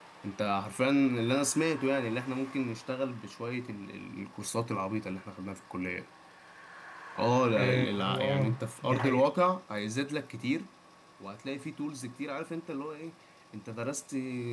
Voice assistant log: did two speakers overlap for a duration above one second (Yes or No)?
Yes